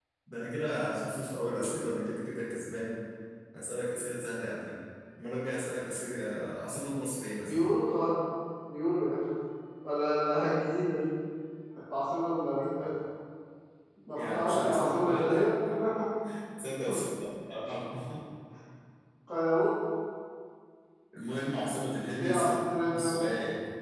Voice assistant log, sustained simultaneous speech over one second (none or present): present